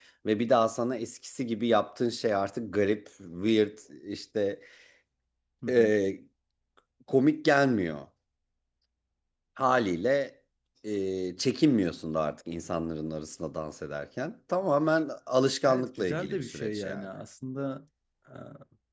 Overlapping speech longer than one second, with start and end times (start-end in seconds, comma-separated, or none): 15.6-17.1